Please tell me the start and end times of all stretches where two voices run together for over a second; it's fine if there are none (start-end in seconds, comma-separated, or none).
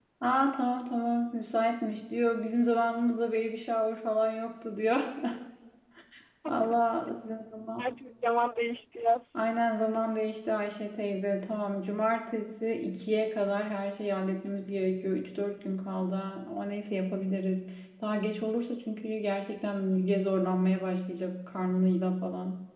none